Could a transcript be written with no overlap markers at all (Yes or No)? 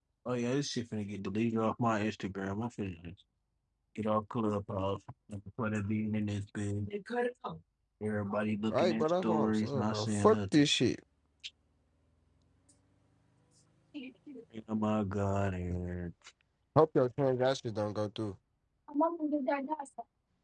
No